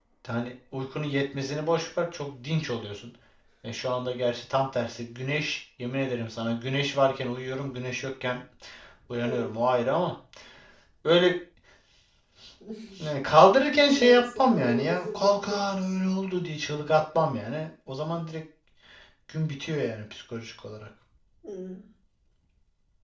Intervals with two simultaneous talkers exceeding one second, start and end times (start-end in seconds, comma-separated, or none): 13.9-15.7